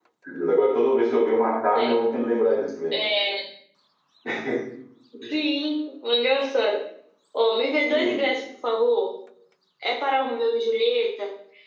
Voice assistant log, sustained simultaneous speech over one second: none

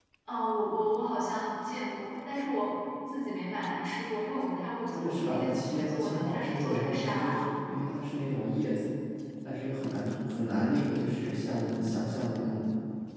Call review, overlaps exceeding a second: present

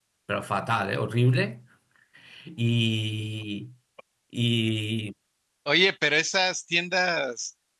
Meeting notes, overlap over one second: none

